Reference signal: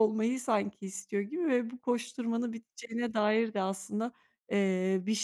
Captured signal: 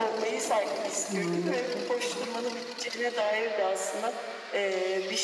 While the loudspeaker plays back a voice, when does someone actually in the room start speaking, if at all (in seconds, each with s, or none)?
1.1 s